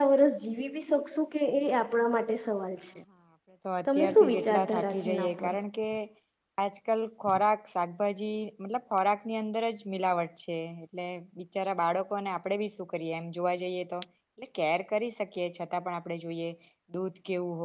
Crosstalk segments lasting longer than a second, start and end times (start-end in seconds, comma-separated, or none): 3.9-5.5